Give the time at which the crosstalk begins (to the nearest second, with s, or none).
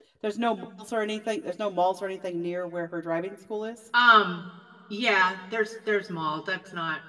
none